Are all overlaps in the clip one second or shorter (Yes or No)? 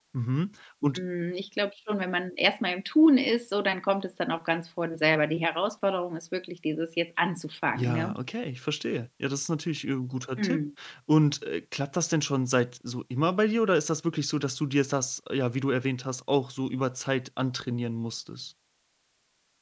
Yes